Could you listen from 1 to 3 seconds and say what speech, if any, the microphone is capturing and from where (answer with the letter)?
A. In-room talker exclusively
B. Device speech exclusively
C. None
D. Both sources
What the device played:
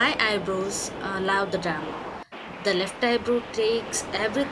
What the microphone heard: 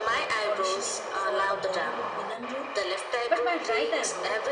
D